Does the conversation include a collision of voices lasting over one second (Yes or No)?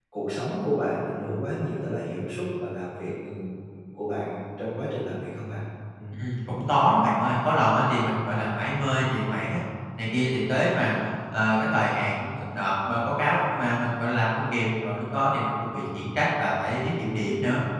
No